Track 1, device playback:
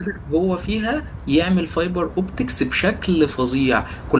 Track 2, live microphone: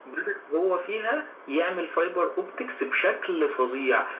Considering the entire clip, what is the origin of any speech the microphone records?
echo only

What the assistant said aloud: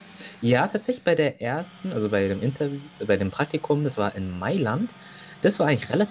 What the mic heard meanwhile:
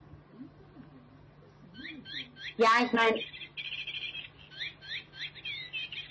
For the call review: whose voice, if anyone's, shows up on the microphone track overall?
user only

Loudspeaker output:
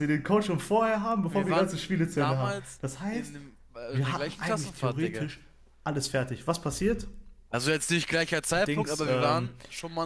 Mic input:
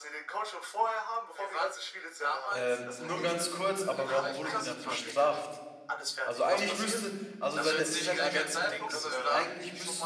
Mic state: both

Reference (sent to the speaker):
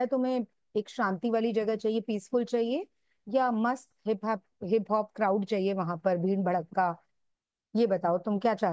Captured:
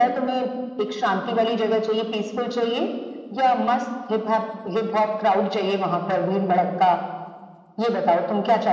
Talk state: echo only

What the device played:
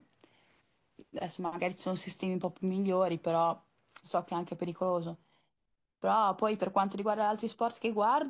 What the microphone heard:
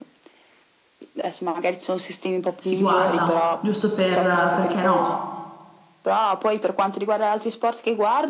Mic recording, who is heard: both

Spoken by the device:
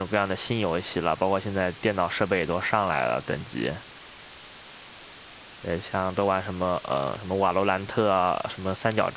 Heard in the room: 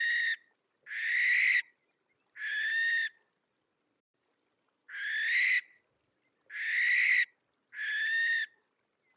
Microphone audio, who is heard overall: neither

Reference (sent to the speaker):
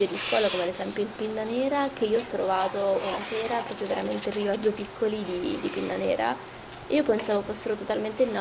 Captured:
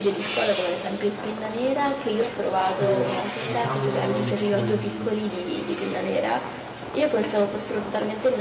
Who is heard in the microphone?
both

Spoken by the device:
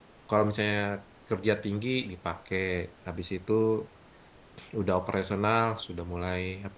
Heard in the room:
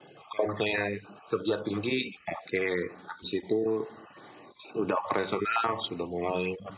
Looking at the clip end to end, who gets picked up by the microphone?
echo only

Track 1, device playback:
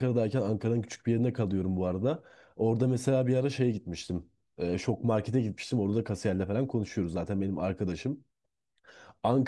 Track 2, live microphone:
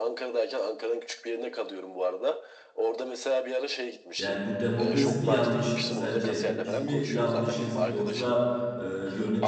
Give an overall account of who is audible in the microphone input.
both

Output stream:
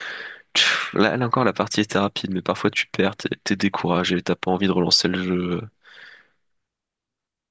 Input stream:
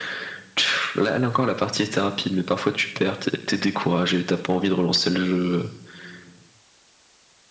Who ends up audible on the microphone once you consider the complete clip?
echo only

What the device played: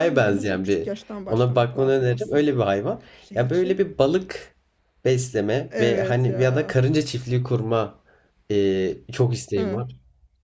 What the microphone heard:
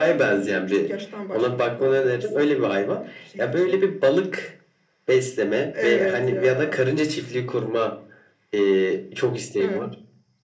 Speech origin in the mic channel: echo only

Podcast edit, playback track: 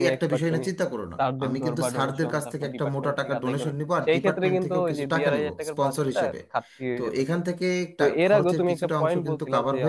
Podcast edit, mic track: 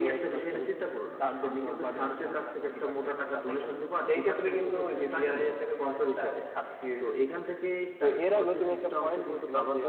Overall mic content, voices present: echo only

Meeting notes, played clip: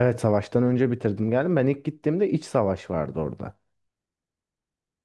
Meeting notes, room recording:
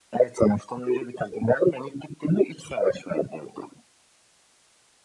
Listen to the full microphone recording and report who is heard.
echo only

